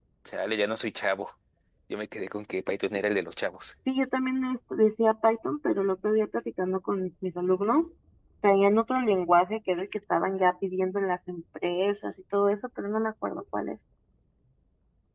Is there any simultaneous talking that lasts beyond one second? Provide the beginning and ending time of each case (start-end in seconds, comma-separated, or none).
none